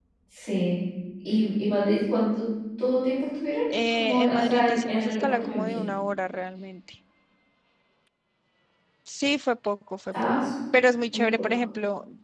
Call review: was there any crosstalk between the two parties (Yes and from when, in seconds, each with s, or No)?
Yes, from 3.9 s